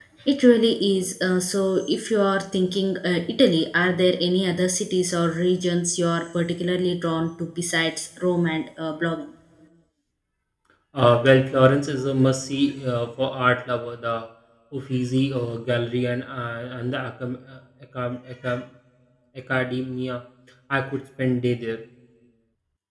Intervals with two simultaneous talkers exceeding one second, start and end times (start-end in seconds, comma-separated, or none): none